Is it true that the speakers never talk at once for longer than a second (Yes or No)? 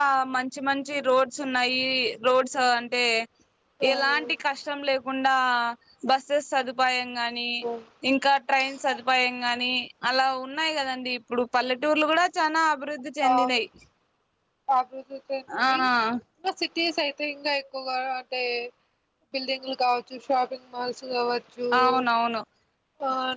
Yes